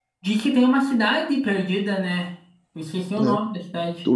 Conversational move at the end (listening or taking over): taking over